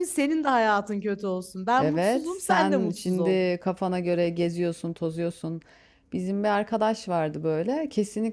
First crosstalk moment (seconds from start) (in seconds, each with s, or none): 1.8 s